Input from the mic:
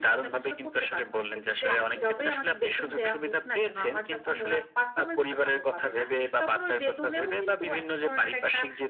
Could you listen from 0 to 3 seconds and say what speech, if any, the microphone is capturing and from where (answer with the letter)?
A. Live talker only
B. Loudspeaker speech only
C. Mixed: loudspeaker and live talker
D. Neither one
C